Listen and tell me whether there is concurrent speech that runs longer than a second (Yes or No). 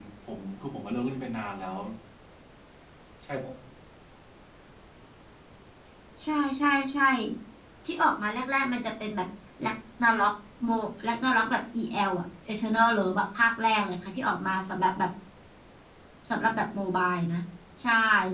No